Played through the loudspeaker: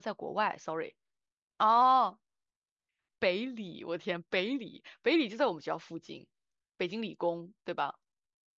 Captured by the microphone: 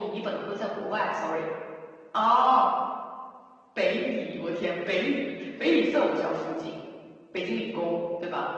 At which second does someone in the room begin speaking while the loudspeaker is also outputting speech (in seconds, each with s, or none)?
none